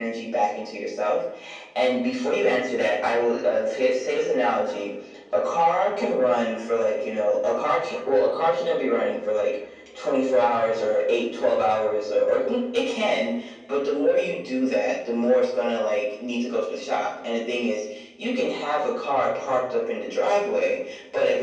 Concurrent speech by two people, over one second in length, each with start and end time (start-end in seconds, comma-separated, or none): none